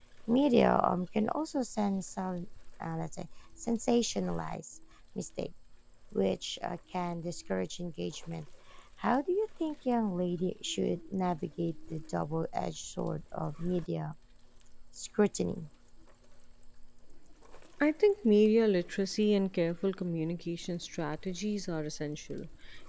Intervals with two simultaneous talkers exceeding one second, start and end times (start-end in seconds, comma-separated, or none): none